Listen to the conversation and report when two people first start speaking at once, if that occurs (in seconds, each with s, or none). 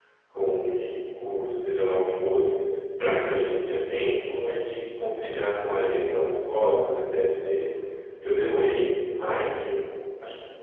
none